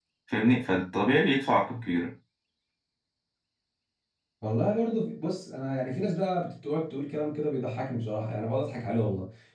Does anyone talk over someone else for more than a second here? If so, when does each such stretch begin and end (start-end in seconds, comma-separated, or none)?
none